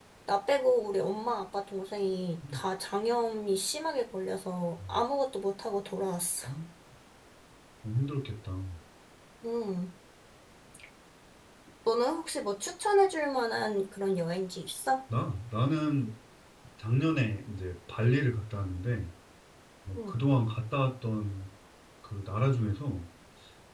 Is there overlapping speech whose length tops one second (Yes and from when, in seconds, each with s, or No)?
No